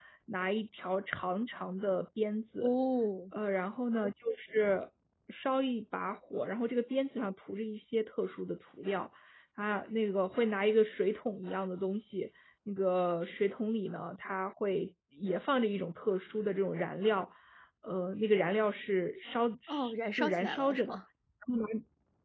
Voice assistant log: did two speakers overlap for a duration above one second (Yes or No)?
Yes